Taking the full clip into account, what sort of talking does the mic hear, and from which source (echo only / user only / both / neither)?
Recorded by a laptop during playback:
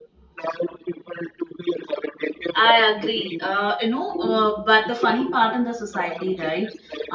both